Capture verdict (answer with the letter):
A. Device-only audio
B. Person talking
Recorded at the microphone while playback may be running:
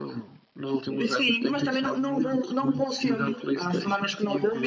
A